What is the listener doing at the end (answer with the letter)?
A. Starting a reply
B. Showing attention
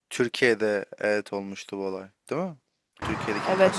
A